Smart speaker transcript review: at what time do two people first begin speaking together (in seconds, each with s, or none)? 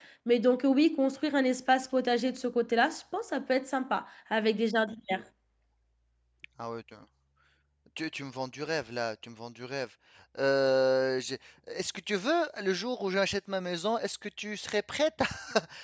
none